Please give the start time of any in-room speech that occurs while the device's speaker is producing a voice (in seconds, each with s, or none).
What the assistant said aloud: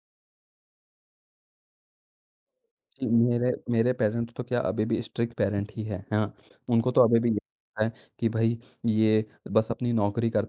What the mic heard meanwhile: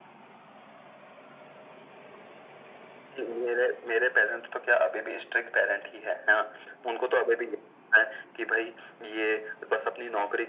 none